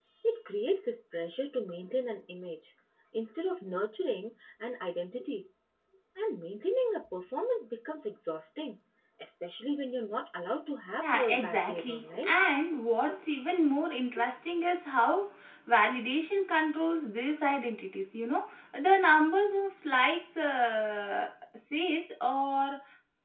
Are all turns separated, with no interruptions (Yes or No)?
No